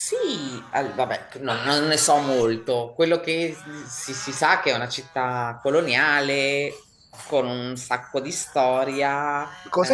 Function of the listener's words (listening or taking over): taking over